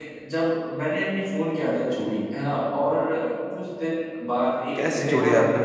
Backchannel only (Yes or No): No